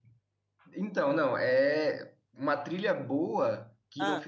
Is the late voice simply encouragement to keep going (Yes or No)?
Yes